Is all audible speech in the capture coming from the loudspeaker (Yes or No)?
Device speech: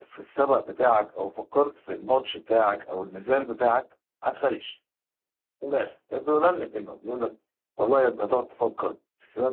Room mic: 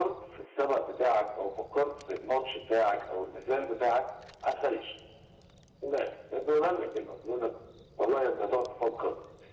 Yes